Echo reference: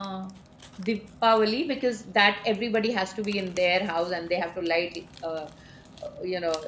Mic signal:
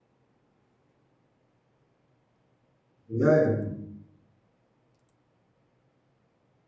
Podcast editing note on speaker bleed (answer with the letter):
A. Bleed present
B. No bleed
B